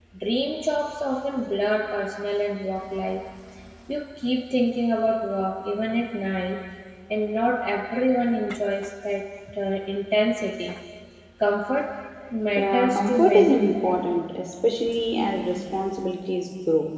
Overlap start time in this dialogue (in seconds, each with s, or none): 12.5 s